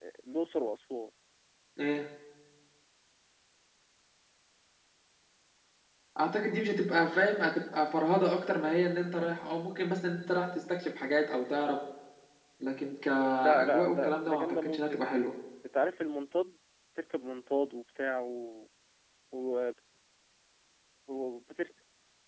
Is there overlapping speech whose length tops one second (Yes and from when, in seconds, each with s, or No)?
Yes, from 13.4 s